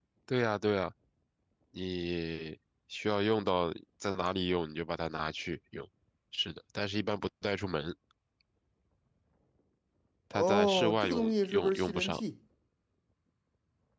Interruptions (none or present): present